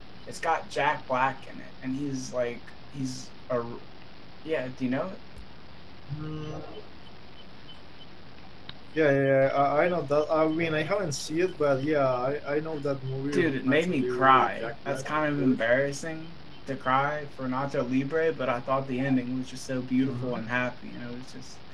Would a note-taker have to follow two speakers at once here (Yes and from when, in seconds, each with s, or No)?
Yes, from 13.3 s